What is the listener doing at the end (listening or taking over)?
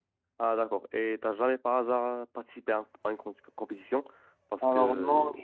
taking over